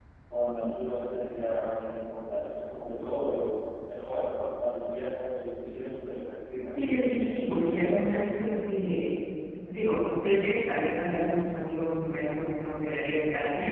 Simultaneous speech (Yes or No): Yes